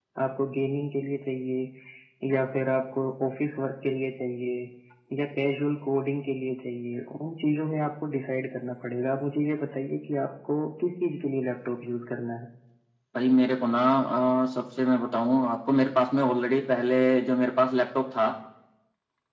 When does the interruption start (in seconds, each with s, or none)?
none